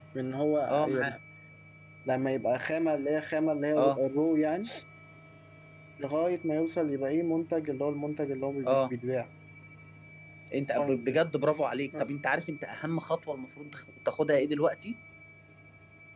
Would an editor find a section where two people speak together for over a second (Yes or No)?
No